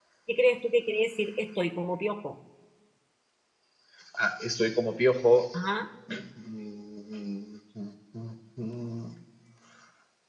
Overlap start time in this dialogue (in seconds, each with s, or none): none